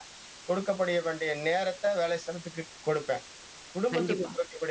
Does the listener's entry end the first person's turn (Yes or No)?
No